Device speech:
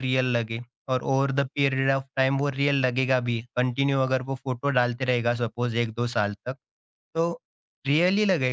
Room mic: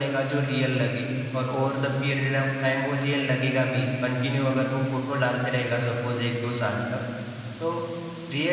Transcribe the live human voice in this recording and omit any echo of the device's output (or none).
none